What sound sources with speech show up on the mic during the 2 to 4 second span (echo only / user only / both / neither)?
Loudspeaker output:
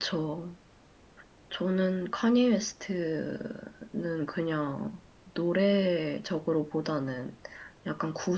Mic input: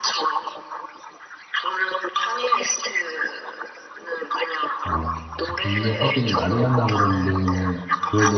echo only